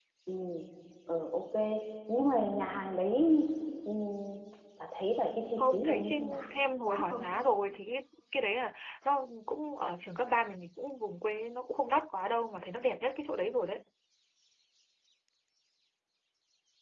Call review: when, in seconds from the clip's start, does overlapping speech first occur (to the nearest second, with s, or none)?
6 s